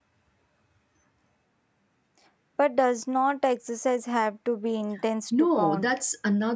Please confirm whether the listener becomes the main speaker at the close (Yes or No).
Yes